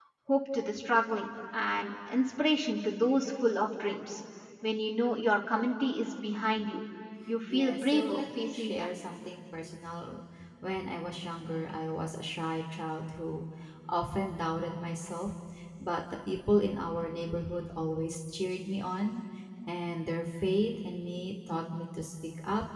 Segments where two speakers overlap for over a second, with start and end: 7.5-9.0

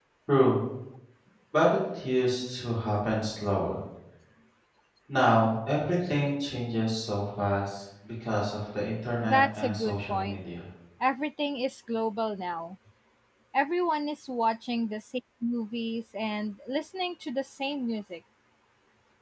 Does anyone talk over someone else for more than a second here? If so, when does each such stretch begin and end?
9.2-10.4

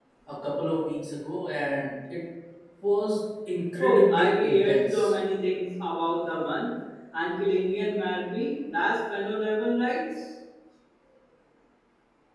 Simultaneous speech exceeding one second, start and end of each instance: 3.8-5.1

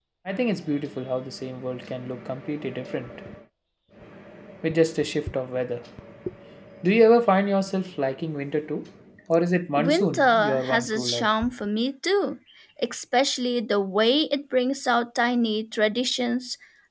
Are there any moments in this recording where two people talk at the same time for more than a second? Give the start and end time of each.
9.8-11.3

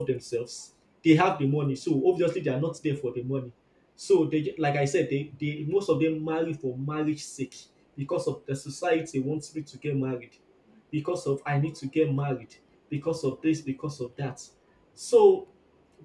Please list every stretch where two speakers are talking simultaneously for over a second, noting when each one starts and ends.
none

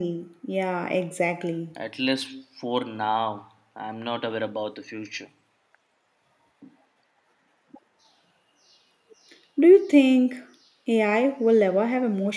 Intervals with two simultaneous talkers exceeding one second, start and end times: none

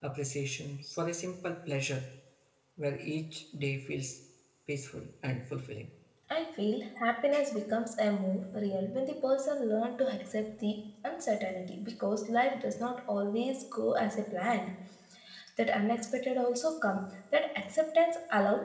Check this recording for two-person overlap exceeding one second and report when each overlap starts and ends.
none

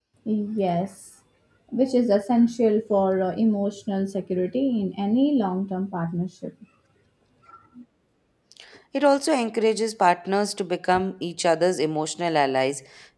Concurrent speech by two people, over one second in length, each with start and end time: none

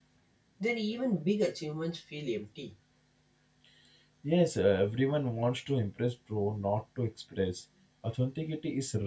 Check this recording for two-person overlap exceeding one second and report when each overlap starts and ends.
none

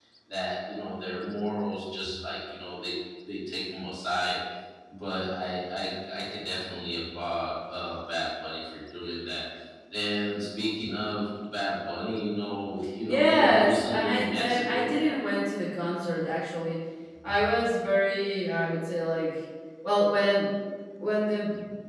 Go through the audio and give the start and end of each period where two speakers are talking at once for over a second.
13.1-14.9

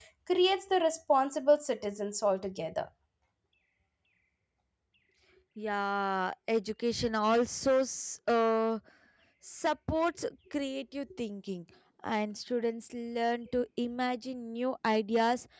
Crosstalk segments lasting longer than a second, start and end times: none

